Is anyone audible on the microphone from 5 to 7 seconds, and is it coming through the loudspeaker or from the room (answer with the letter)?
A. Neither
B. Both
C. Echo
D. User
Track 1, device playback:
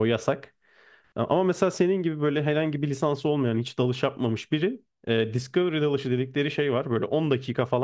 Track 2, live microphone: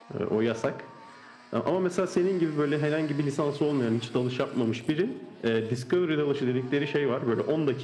C